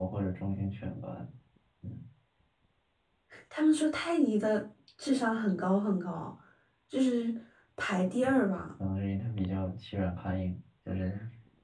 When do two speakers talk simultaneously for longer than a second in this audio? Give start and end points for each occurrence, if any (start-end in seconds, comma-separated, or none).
none